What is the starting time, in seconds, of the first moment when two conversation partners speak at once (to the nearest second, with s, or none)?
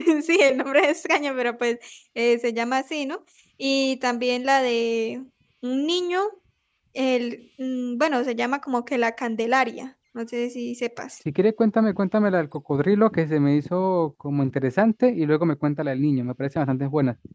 none